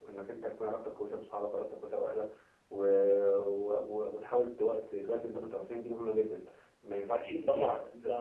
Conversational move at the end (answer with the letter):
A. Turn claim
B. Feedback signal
A